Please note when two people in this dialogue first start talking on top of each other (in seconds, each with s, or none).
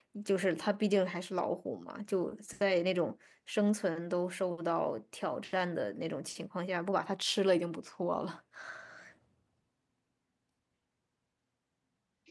none